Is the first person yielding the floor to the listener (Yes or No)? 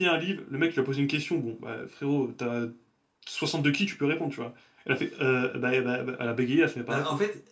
Yes